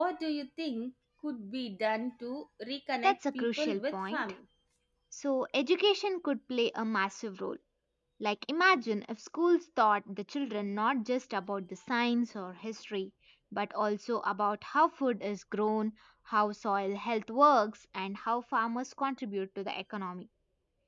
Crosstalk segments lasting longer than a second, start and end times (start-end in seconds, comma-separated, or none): 3.0-4.2